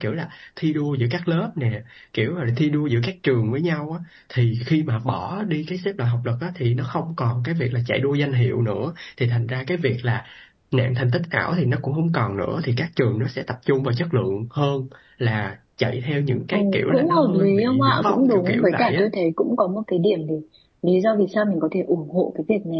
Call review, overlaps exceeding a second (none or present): present